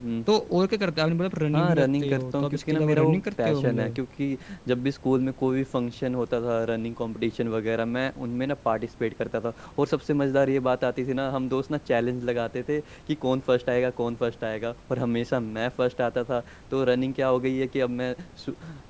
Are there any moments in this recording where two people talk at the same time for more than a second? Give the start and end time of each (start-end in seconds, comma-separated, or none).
1.5-4.0